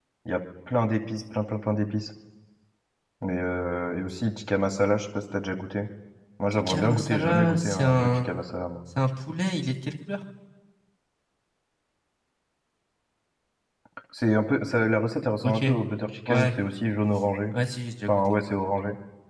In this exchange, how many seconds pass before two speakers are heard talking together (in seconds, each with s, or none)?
6.5 s